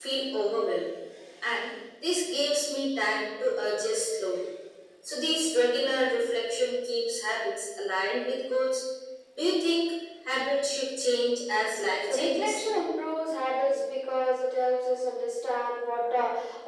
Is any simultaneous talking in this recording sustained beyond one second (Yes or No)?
No